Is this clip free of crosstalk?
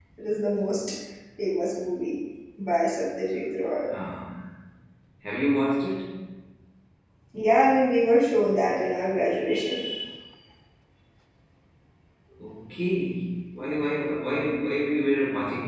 Yes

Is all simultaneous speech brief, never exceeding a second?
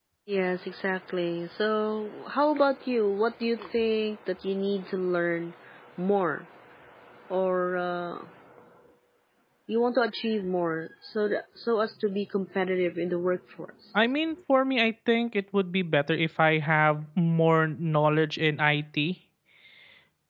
Yes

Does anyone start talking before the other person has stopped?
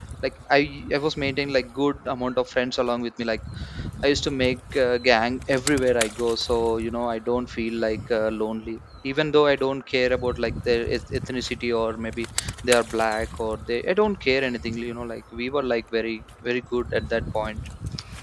No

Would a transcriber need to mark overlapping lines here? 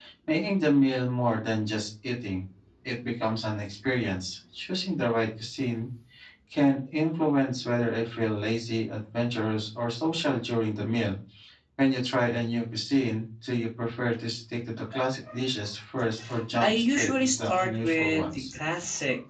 Yes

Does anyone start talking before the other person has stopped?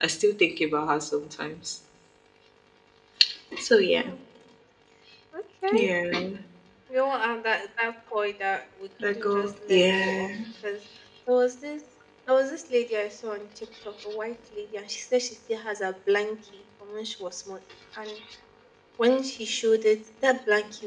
Yes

